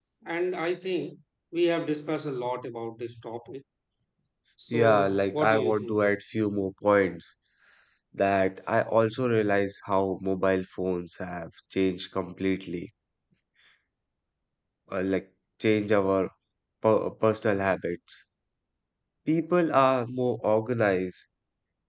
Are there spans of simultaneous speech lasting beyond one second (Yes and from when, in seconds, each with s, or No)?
Yes, from 4.7 s